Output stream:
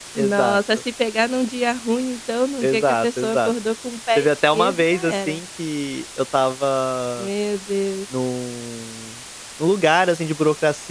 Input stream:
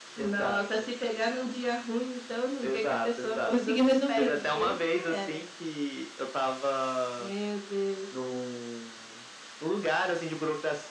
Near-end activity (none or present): present